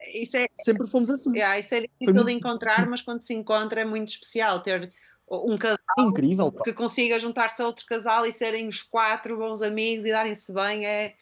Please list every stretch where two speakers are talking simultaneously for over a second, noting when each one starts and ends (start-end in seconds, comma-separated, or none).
none